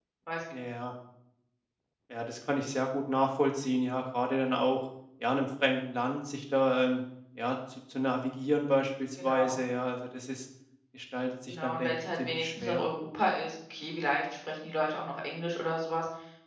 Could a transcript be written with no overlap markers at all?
No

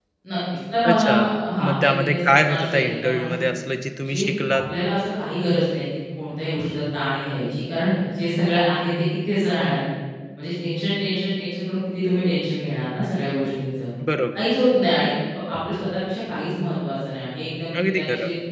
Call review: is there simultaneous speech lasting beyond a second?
Yes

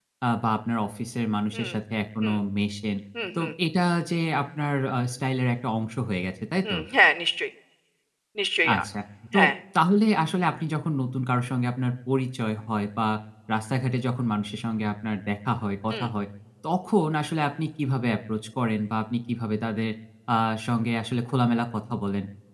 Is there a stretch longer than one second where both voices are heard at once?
No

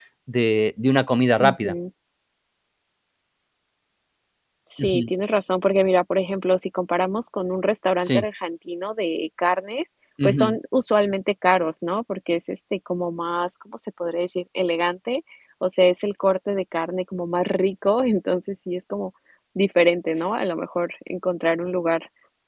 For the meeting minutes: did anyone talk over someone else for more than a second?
No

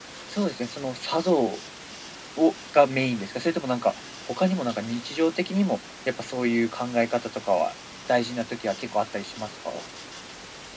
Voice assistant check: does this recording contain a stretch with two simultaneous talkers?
No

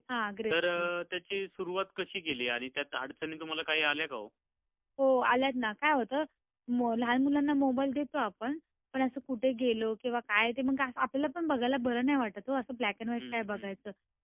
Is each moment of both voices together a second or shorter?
Yes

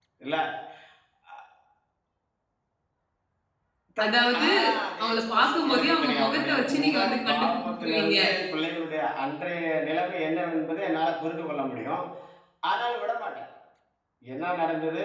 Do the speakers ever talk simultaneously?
Yes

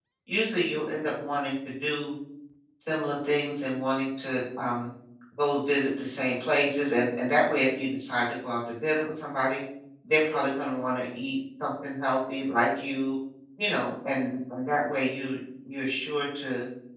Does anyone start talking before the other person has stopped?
No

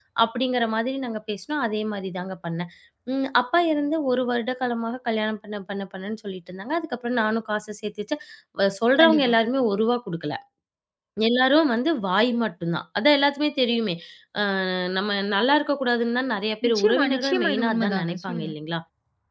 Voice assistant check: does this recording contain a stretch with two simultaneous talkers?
Yes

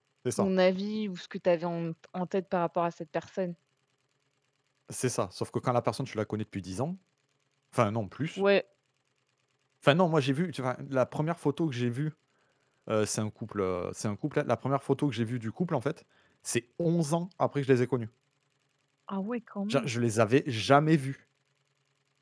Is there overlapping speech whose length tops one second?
No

